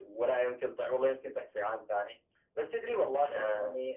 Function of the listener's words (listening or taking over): listening